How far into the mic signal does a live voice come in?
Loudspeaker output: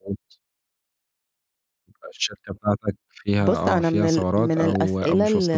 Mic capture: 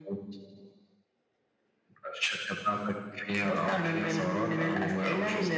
none

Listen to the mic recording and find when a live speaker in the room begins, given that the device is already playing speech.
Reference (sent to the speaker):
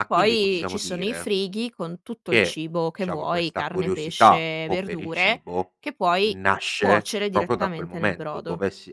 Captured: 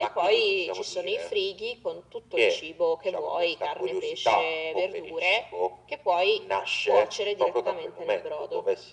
none

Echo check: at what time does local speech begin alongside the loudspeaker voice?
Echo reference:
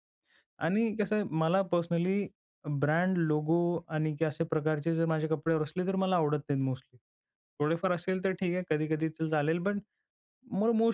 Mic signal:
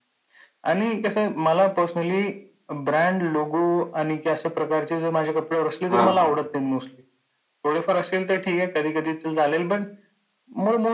5.9 s

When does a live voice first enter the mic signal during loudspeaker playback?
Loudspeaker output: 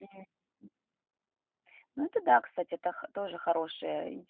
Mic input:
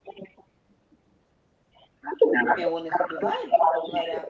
2.4 s

